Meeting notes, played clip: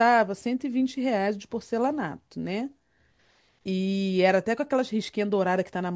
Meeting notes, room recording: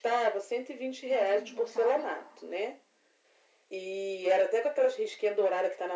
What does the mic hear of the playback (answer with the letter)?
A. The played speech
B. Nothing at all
A